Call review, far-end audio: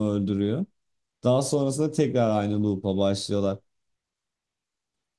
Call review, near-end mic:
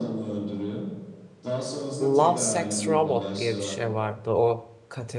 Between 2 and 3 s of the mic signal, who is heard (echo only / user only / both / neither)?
both